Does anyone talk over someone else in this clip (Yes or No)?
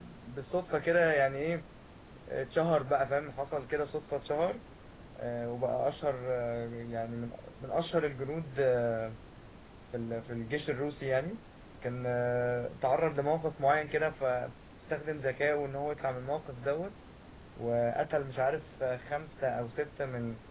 No